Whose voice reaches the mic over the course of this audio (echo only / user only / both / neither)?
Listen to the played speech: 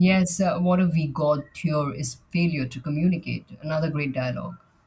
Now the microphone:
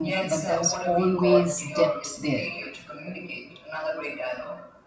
both